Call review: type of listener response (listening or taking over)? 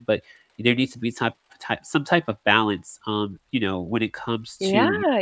taking over